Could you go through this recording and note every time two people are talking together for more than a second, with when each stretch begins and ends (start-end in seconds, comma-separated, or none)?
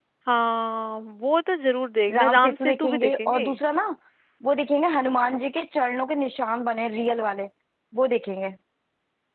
2.1-3.4